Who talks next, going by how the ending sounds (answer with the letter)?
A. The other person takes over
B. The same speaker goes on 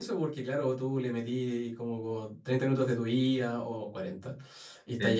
B